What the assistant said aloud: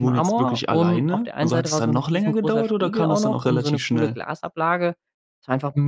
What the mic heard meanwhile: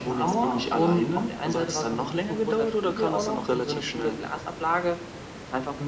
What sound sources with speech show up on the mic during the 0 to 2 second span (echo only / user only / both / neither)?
echo only